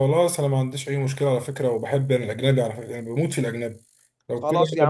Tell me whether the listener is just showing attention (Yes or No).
No